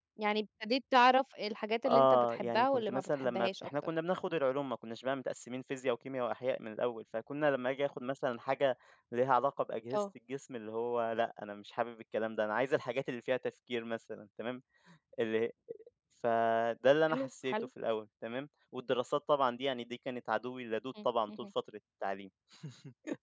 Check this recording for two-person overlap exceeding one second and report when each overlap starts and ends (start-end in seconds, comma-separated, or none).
1.9-3.7